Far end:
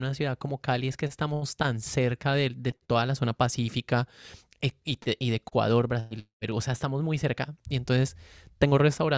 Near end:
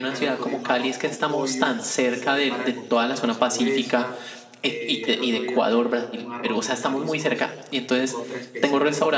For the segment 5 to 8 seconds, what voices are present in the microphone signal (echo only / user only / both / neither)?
both